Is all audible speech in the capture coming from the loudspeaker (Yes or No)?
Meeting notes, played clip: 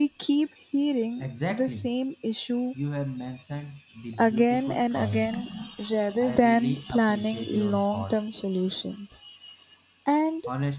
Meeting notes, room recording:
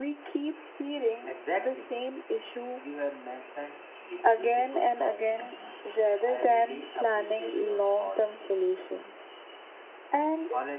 Yes